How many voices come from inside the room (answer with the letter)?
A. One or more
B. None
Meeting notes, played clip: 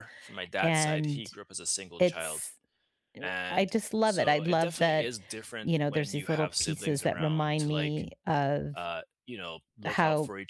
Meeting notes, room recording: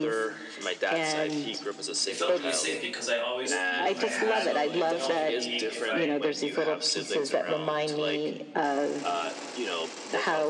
A